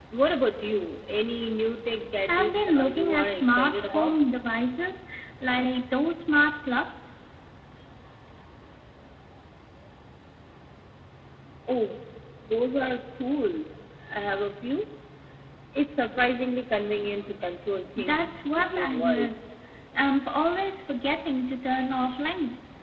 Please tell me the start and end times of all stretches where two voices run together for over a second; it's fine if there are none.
2.3-4.1, 18.0-19.3

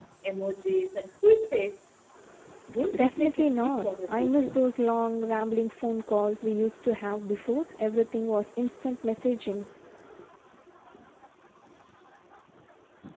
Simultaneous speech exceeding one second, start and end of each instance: 3.0-4.6

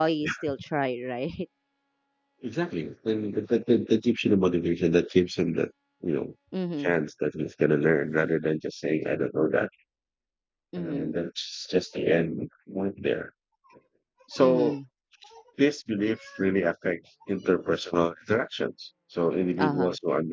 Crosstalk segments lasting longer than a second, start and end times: none

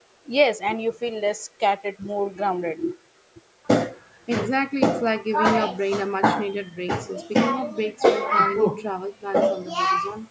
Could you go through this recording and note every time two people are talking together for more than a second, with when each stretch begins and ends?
none

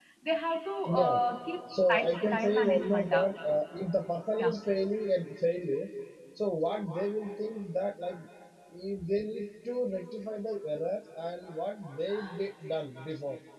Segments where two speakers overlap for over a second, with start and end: 1.9-3.3

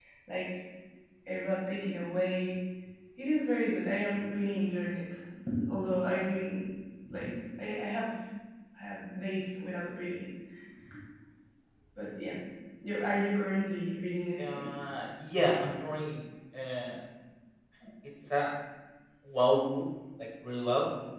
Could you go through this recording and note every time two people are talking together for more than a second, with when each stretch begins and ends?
none

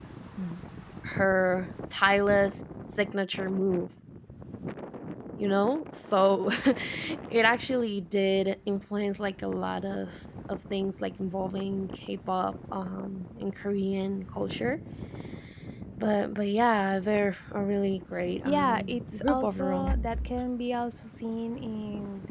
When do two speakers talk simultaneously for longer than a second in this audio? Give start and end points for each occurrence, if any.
18.4-19.9

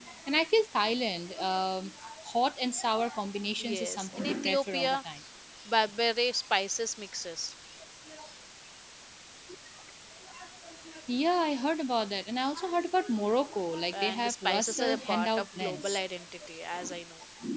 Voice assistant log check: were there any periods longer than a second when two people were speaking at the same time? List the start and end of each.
3.6-5.0, 13.9-16.0

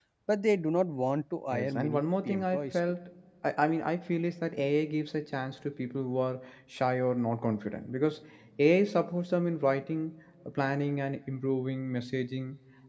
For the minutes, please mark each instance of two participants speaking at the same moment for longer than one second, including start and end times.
1.5-2.8

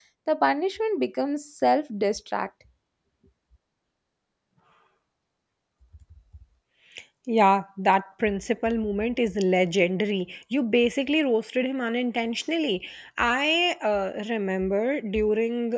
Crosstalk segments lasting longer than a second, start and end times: none

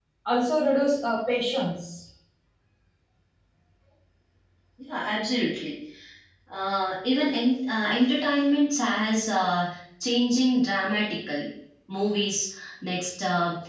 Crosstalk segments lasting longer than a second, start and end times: none

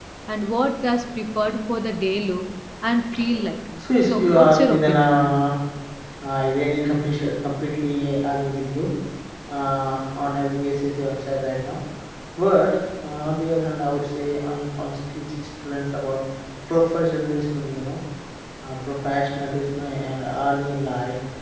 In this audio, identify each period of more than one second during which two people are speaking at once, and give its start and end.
4.0-5.2

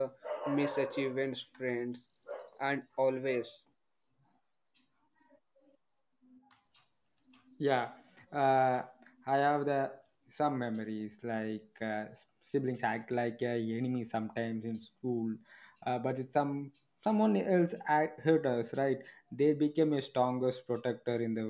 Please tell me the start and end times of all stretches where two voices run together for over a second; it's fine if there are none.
none

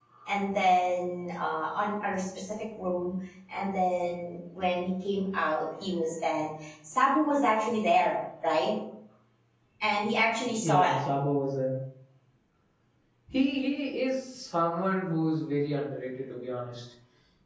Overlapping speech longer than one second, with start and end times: none

